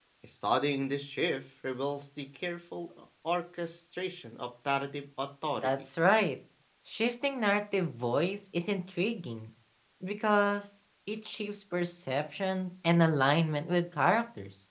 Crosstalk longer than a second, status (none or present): none